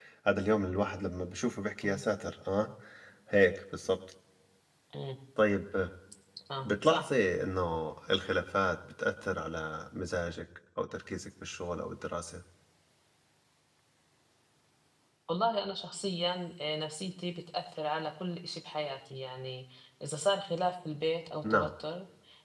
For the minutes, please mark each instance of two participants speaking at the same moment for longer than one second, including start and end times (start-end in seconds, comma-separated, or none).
none